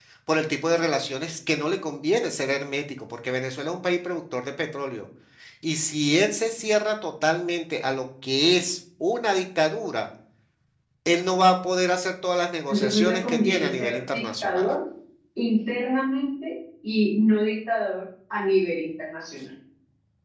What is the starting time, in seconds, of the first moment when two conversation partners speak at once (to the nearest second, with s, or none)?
13 s